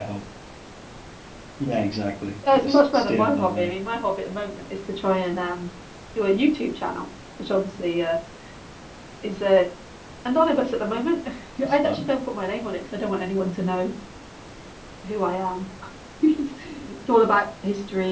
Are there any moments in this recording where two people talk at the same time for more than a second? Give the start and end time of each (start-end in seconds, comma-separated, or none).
2.5-3.7